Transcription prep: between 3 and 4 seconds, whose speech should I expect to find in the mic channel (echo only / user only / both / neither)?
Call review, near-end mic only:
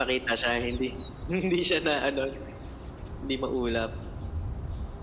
echo only